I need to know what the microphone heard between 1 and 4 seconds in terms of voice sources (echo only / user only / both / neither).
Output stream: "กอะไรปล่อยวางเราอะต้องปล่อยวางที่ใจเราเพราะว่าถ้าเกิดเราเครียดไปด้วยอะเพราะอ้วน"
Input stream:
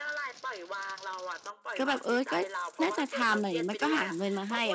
both